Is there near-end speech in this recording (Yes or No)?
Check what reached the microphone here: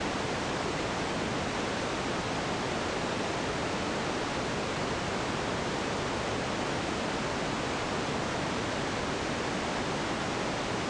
No